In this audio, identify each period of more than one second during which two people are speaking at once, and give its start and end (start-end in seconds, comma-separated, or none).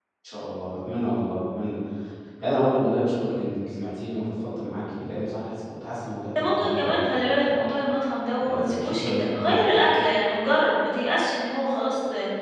6.4-7.8, 8.4-9.7